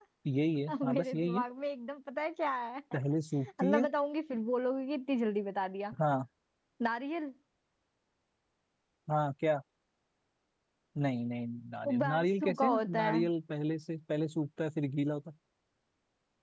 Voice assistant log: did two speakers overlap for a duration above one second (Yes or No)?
Yes